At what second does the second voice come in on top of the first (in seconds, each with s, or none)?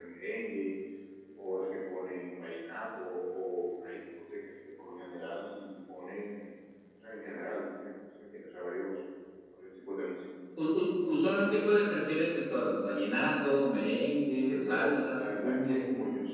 14.5 s